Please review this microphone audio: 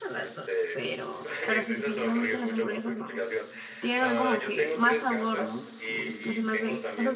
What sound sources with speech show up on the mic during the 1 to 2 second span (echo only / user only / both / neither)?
both